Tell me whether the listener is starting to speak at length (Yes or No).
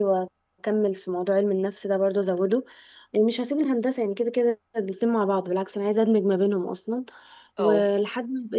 No